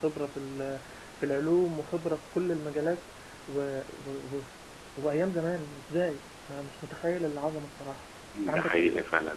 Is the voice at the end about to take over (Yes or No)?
Yes